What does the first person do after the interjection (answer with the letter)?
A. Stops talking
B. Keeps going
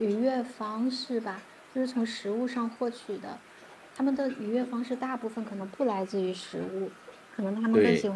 B